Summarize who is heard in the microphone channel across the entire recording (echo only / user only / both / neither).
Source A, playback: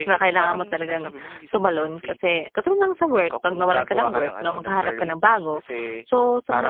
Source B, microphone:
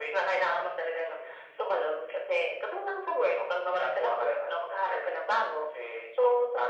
echo only